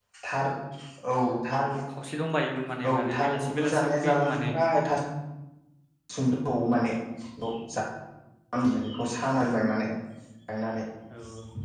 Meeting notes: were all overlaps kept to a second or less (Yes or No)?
No